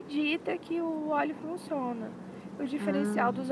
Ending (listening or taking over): listening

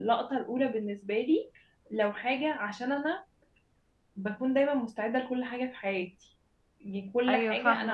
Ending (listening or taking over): listening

